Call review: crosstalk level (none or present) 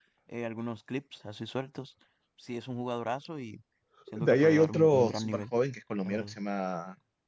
present